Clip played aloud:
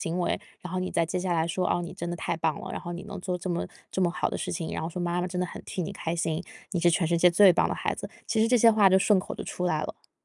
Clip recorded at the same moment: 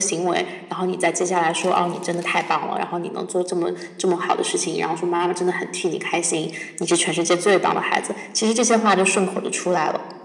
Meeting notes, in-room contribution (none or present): none